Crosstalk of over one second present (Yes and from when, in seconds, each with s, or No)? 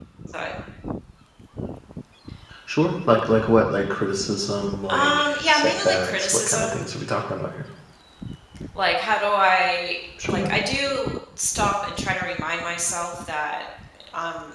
Yes, from 4.9 s